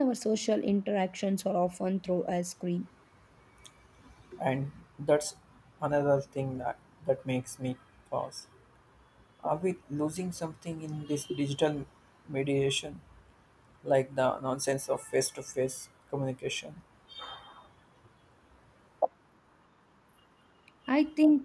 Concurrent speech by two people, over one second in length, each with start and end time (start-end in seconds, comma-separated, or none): none